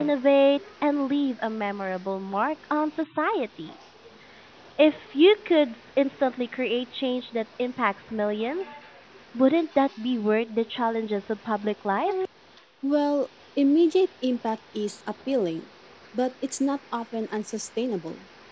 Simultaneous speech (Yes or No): No